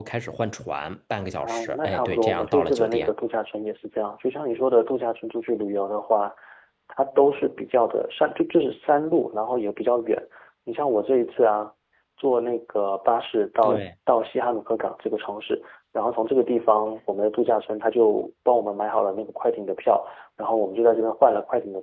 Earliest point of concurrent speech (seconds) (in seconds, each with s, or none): 1.4 s